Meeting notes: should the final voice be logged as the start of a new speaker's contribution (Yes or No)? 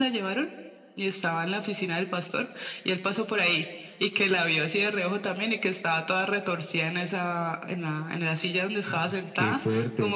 No